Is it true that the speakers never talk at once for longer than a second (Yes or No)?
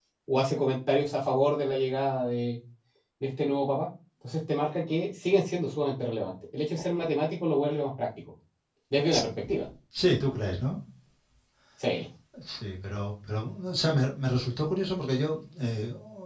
Yes